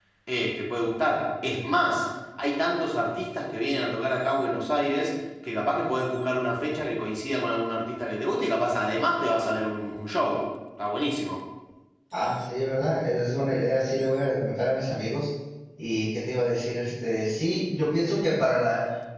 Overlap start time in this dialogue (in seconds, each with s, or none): none